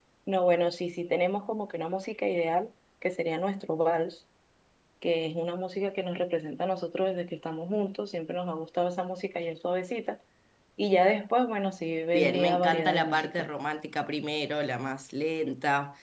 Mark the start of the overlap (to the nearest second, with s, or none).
12 s